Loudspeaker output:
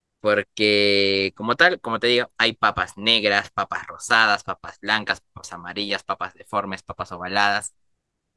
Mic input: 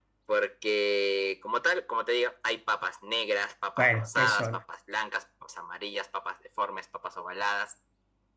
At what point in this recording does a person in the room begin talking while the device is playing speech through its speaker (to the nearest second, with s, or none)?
4 s